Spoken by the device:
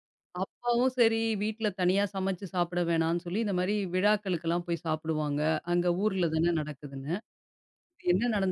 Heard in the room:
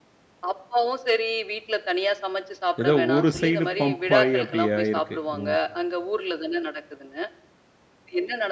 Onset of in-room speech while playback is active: 2.8 s

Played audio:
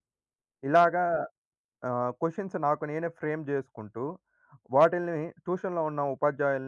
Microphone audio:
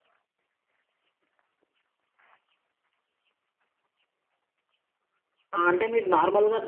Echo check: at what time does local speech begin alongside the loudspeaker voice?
5.6 s

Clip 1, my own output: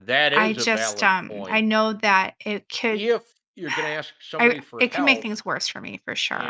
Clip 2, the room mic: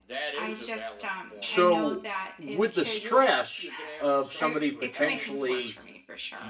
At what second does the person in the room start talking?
1.4 s

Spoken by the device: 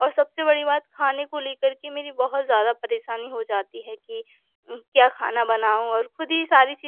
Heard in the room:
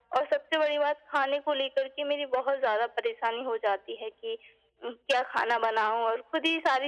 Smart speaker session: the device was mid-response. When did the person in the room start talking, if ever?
none

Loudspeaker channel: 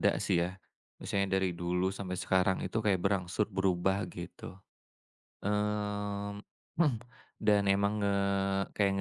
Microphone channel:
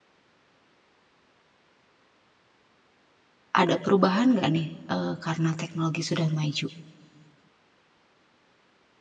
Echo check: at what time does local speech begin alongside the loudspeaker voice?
3.6 s

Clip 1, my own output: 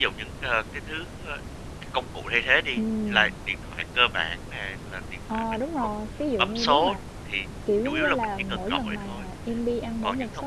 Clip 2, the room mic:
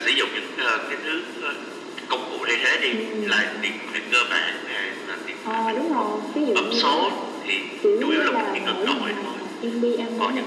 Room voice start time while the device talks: none

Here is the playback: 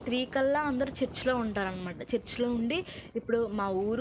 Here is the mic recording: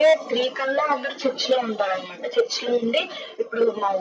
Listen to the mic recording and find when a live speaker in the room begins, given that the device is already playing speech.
none

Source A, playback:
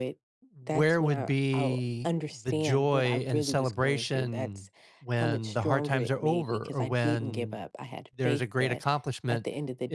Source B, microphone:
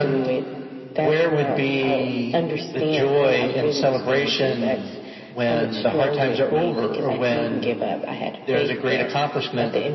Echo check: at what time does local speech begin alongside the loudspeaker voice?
none

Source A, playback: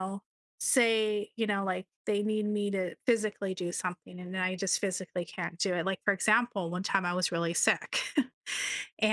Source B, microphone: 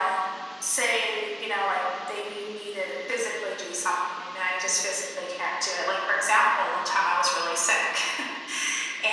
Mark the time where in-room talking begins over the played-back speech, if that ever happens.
none

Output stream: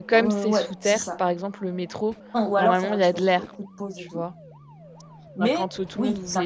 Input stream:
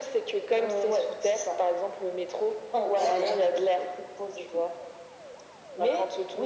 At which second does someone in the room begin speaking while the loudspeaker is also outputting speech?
2.9 s

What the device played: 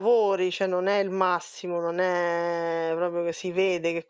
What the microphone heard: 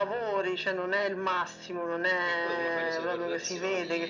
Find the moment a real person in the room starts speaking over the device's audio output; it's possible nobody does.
2.3 s

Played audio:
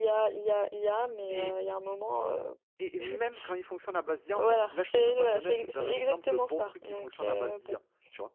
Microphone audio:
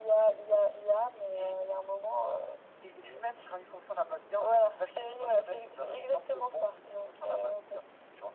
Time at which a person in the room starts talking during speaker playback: none

